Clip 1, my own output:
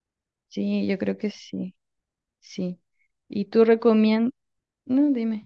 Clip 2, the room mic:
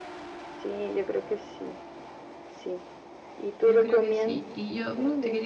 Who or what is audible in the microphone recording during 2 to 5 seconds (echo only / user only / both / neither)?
both